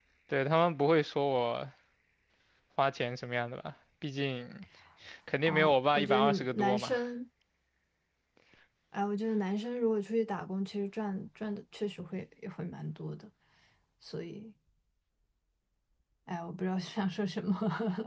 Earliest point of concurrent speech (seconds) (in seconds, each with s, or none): 5.5 s